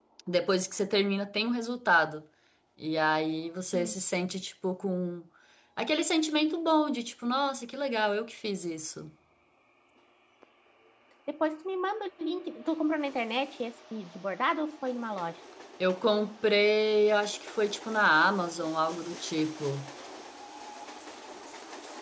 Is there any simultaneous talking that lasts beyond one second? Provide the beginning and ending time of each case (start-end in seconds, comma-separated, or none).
none